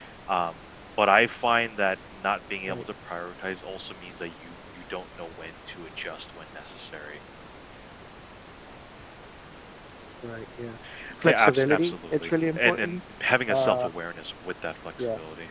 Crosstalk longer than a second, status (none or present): present